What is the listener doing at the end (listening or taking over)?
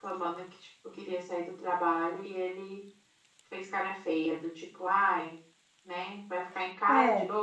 listening